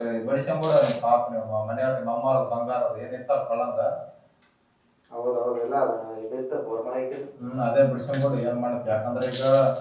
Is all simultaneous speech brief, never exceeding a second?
Yes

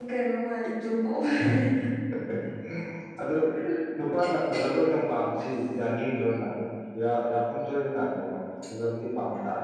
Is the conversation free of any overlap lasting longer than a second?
Yes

